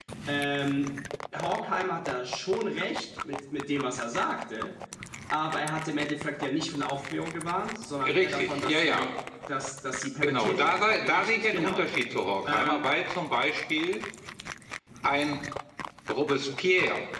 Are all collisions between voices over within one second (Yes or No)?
No